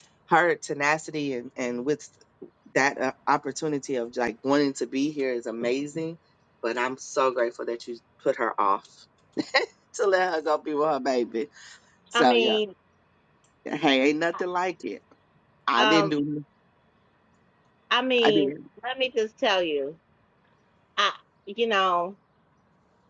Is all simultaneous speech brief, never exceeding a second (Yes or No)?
Yes